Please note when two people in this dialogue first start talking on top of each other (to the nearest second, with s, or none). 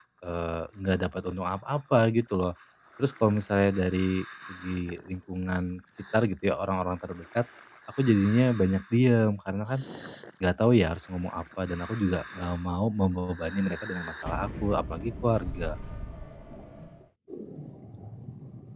none